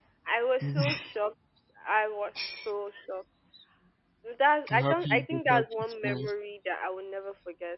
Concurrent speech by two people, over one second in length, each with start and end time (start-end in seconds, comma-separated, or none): 4.7-6.3